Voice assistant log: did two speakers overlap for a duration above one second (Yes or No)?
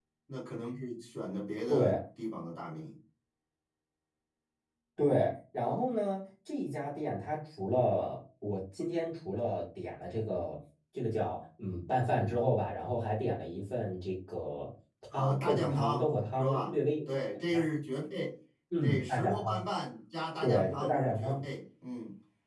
Yes